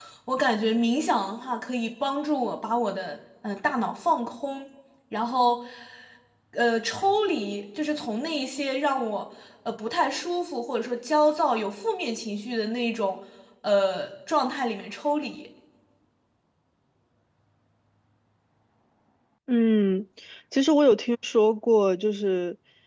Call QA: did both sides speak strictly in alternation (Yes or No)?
Yes